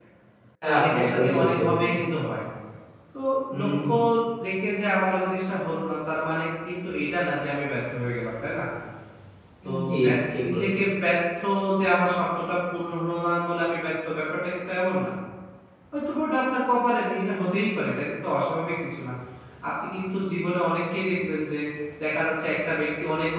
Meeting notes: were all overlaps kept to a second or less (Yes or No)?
No